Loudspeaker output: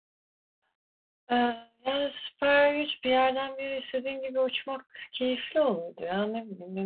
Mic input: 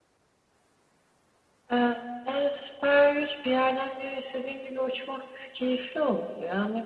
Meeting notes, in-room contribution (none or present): none